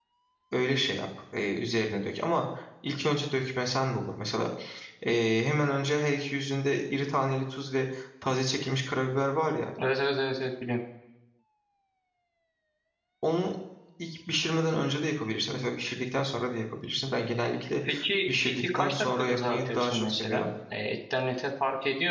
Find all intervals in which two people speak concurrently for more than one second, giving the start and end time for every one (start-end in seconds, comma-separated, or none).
18.3-20.5